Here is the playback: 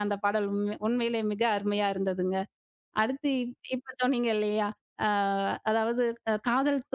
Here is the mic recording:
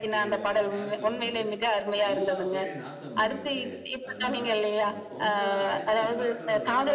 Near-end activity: present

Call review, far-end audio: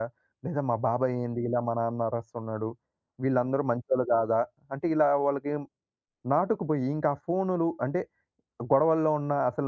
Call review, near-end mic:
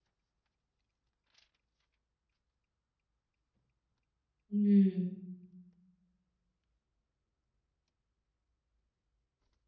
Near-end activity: present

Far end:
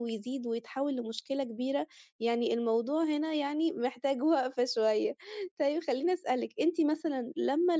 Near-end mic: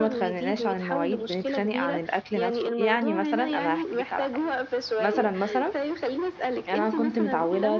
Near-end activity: present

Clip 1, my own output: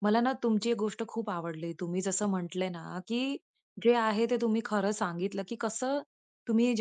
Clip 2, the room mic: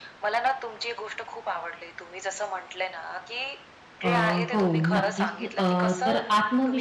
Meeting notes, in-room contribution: present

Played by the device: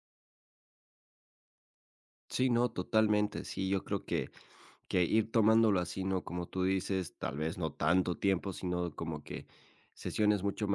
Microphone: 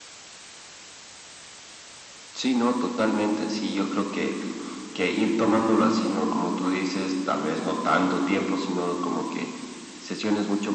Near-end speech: none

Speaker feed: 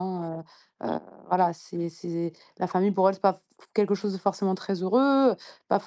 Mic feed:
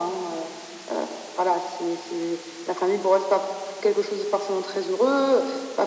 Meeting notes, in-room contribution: none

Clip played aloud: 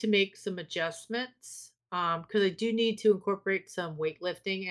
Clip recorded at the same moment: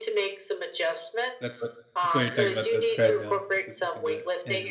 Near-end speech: present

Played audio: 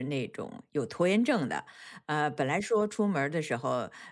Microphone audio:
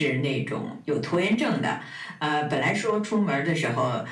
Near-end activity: none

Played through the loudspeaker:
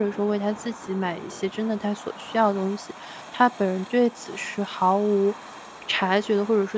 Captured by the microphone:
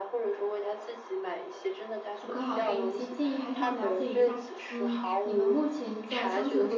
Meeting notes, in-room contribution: present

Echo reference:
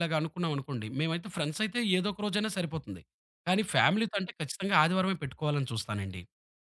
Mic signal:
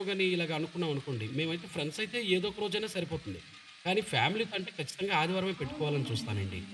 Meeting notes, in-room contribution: present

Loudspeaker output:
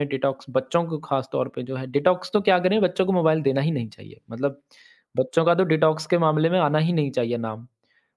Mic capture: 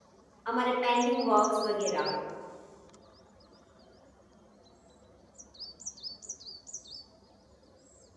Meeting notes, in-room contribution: present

